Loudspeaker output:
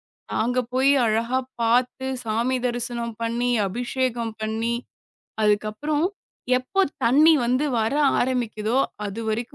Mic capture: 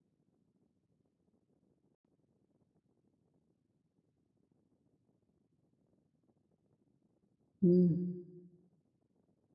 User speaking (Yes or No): Yes